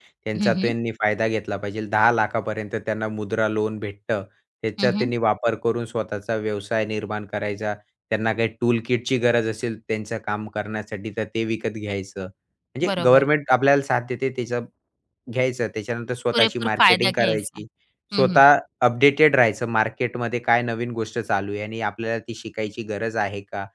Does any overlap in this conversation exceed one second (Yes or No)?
Yes